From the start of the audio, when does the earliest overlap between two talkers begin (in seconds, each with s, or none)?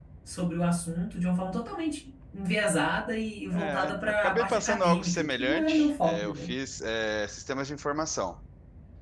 3.5 s